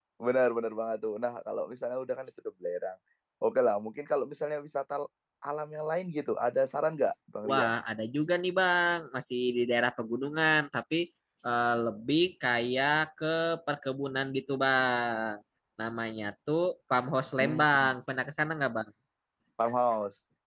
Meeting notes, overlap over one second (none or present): none